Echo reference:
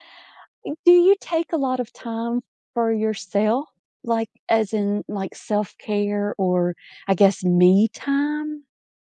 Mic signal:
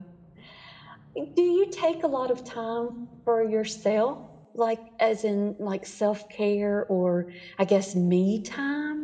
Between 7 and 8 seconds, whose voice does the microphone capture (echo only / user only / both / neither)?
echo only